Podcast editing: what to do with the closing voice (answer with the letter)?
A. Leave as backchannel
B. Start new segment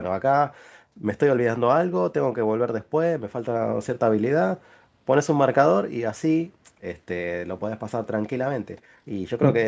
A